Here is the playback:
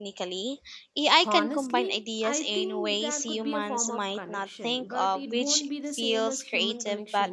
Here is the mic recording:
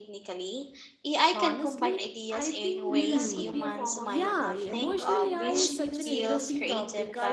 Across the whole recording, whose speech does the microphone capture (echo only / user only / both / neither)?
both